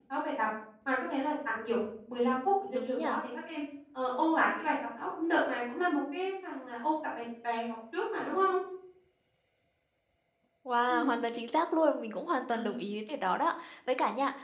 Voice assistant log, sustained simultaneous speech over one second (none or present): none